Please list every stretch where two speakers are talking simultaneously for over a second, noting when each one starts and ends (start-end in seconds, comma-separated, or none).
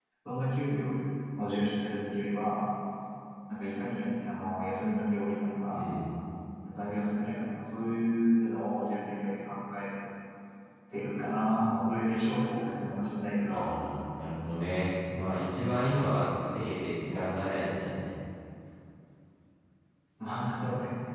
none